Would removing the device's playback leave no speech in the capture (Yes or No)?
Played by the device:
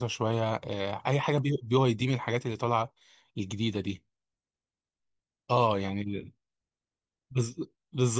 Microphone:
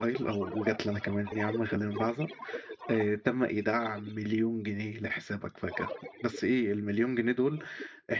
No